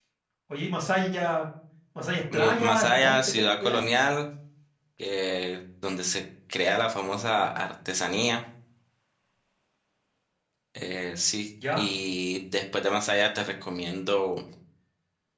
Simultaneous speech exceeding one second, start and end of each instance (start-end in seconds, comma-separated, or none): 2.3-3.8